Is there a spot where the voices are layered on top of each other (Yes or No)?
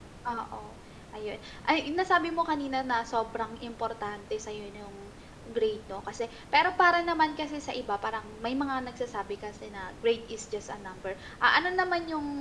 No